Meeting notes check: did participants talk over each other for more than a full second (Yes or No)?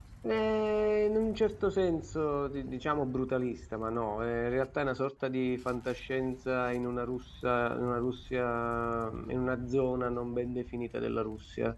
No